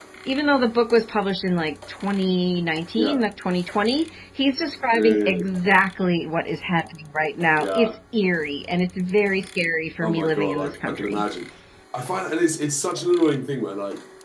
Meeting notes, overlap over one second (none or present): present